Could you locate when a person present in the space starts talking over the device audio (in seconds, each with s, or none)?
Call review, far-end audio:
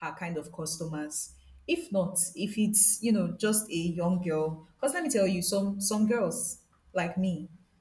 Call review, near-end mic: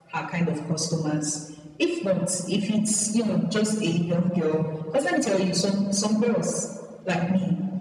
none